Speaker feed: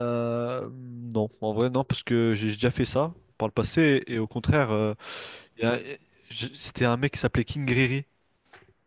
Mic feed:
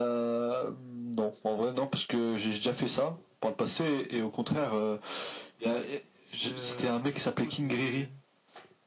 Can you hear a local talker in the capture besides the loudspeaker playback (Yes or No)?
Yes